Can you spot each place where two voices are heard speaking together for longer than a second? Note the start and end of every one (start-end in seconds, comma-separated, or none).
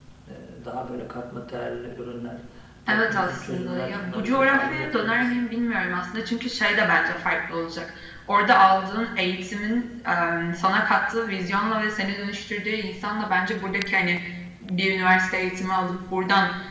2.9-5.5